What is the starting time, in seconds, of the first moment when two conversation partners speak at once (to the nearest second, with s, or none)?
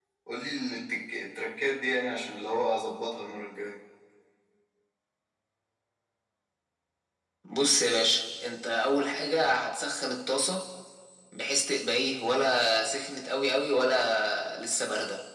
none